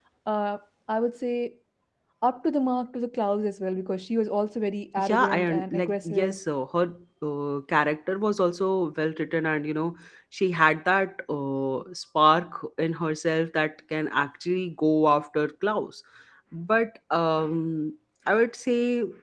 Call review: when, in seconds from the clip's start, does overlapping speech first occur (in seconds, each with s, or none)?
5.0 s